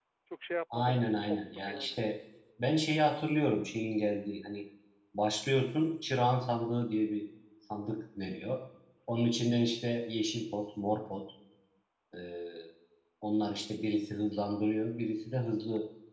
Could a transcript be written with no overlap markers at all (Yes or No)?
No